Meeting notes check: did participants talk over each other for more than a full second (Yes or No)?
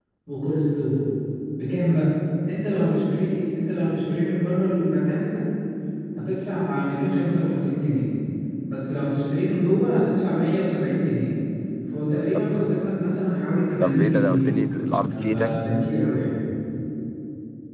Yes